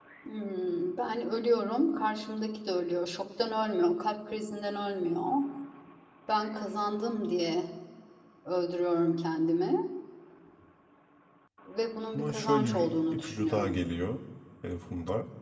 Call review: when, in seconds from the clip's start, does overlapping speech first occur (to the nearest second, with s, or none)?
12 s